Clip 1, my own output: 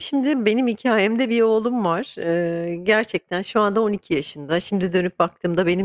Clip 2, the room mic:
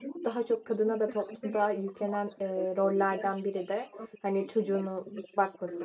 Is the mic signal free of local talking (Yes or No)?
No